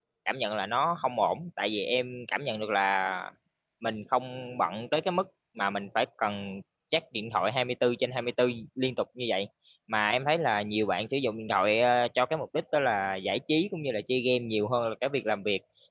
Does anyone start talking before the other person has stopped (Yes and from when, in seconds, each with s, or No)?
No